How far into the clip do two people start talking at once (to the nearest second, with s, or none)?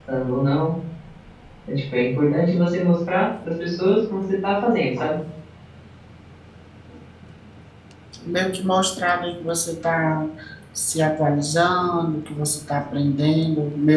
none